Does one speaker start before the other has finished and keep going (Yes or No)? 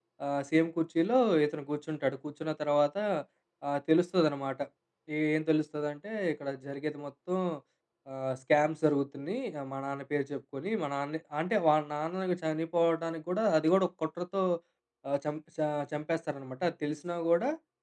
No